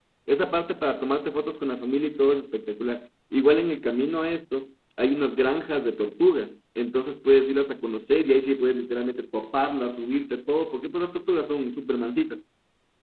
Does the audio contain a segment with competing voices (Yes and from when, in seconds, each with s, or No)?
No